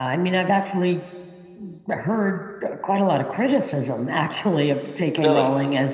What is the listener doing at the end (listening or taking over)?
listening